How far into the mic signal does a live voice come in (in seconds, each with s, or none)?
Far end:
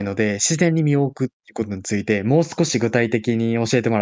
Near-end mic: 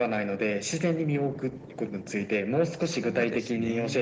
2.8 s